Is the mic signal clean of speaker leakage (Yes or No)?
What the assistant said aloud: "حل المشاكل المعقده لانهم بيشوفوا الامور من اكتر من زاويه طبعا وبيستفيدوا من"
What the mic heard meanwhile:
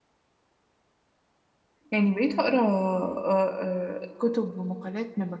Yes